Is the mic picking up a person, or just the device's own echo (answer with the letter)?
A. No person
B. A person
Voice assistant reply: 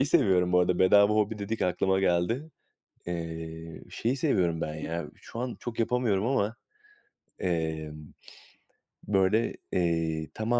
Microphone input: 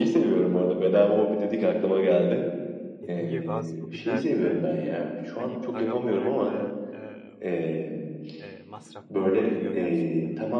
B